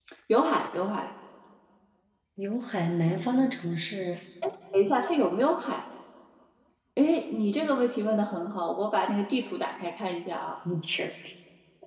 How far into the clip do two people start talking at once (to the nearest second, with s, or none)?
none